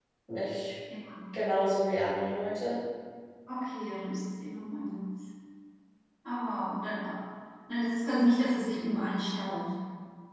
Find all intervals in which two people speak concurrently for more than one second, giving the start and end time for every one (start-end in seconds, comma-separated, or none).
none